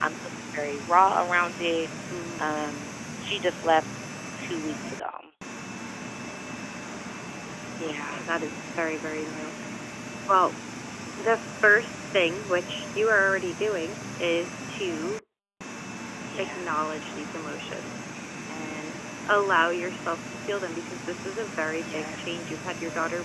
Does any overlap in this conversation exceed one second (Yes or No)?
No